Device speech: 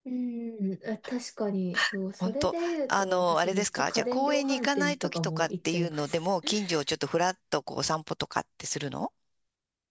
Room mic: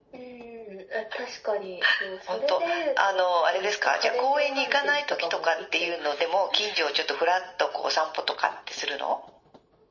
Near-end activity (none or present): none